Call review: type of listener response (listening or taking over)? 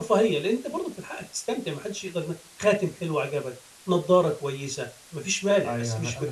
taking over